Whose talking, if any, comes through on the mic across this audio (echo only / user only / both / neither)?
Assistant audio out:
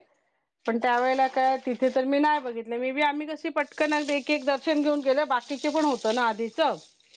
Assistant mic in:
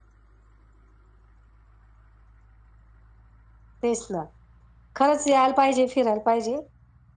user only